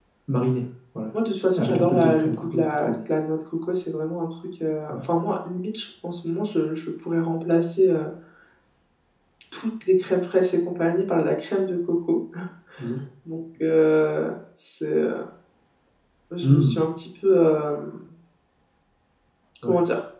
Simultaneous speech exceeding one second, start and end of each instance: 1.5-3.0

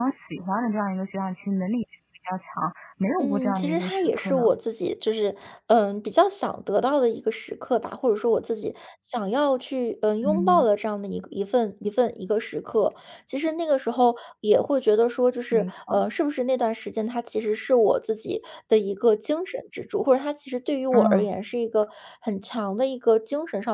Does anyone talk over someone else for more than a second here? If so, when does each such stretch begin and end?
3.2-4.5

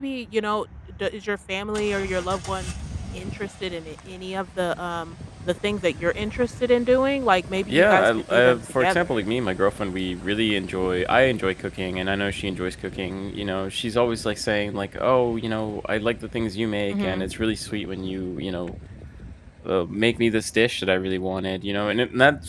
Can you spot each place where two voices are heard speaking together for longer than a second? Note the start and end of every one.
7.7-9.2

